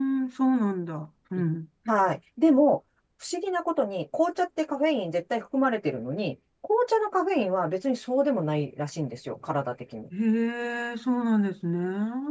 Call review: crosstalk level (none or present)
none